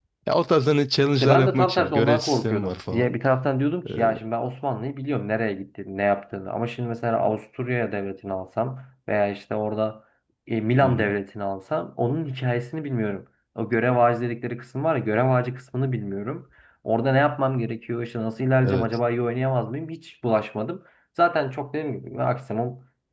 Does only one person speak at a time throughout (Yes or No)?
No